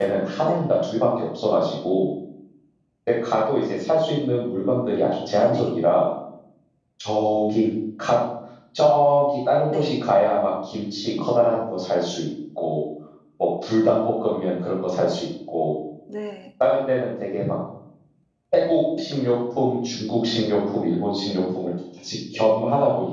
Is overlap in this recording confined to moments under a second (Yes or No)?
Yes